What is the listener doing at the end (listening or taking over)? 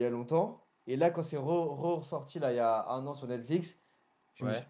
listening